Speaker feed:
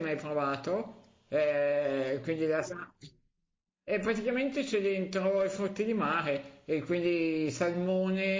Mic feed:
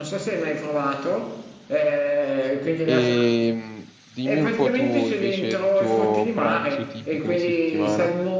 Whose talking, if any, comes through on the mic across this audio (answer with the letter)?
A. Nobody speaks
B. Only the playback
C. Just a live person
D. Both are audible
D